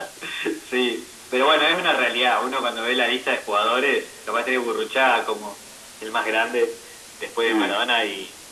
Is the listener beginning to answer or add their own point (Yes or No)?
No